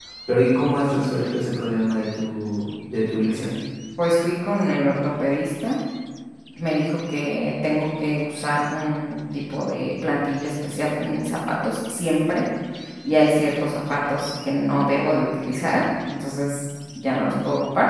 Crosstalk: none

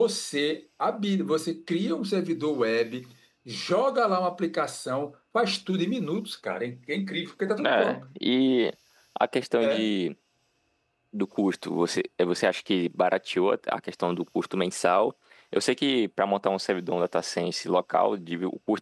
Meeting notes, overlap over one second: none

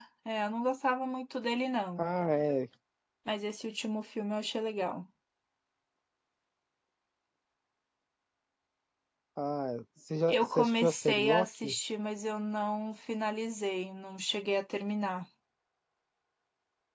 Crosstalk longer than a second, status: present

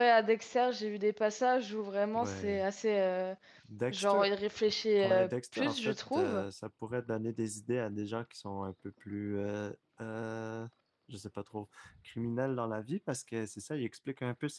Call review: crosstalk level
present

